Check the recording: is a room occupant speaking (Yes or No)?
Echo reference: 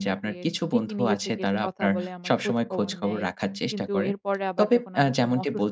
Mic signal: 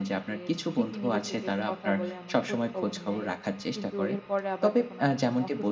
No